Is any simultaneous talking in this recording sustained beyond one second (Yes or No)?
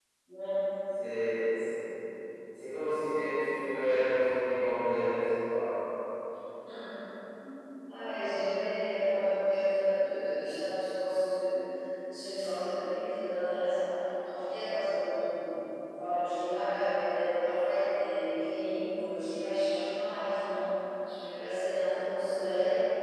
No